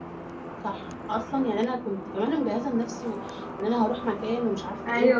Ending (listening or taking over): listening